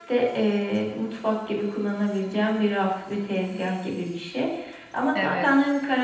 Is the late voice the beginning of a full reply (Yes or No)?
No